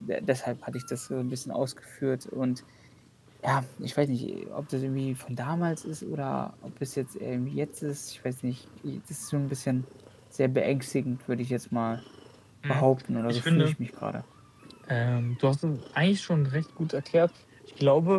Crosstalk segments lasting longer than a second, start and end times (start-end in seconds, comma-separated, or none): none